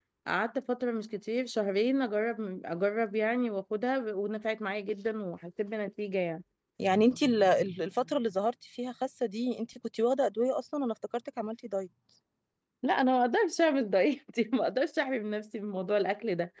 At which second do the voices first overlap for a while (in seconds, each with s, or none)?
none